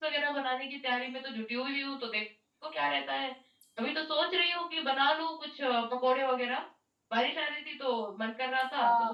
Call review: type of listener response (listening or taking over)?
taking over